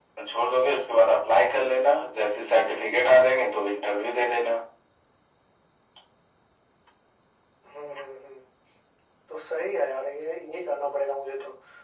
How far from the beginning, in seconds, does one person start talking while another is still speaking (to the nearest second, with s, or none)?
none